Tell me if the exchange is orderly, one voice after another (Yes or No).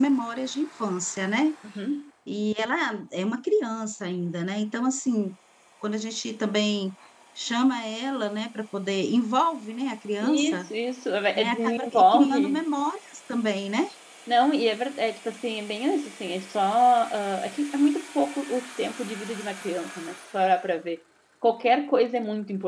No